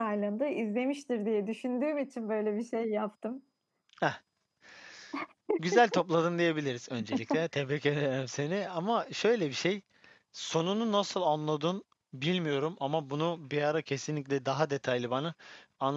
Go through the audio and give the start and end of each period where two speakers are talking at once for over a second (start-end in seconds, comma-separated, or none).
none